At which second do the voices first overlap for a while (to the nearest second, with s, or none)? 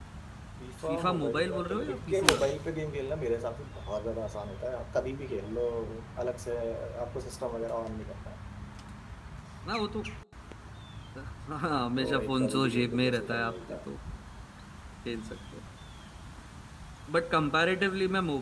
1 s